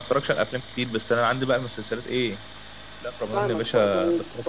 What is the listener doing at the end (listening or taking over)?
taking over